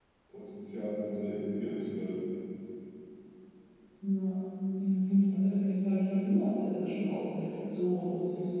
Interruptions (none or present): none